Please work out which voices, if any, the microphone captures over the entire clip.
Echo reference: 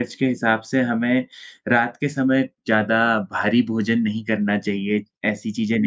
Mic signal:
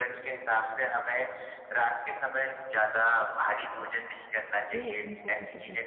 both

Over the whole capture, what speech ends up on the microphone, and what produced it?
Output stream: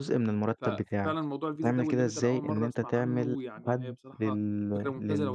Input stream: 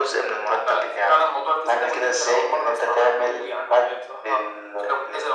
echo only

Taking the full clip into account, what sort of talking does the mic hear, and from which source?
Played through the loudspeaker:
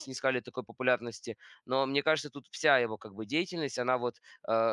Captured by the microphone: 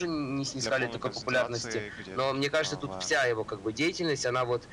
both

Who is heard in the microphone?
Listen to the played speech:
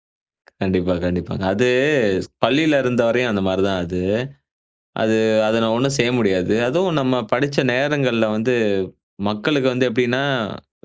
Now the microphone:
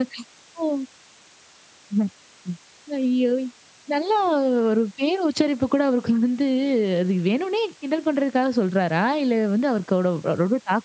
user only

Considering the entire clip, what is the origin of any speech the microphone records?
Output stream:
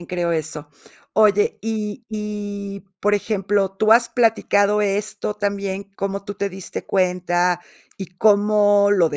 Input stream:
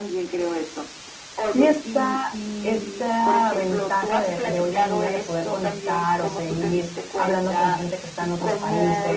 both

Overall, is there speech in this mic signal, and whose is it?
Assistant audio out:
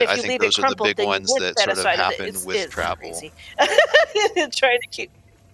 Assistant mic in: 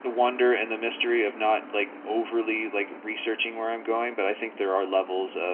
user only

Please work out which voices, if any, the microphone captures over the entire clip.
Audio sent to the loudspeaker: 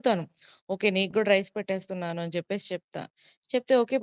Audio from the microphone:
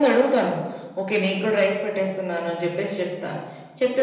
echo only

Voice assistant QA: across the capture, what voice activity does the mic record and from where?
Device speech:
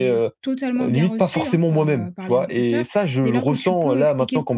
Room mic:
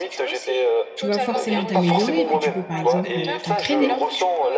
both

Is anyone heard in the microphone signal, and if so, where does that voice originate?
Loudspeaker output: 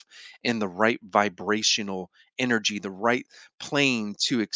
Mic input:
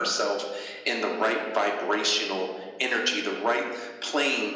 echo only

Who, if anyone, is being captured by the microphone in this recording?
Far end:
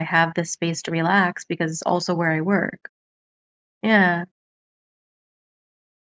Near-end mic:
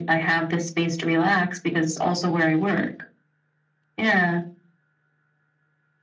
echo only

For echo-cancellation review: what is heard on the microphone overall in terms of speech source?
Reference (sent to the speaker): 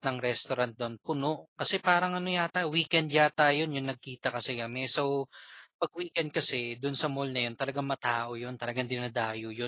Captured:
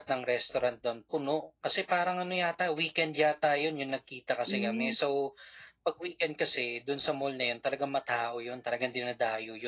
both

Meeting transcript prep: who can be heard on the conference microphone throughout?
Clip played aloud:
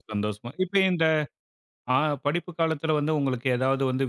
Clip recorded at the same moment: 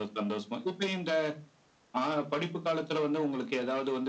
echo only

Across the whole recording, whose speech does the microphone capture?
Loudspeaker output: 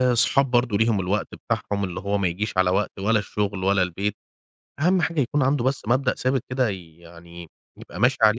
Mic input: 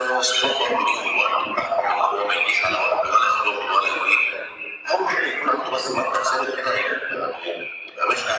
echo only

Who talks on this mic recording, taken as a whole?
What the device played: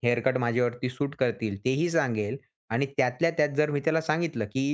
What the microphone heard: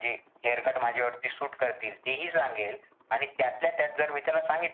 echo only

